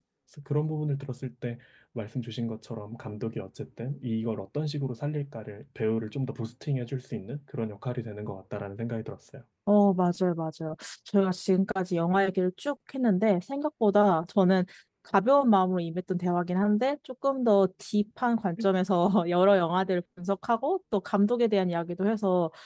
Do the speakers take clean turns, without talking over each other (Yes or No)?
Yes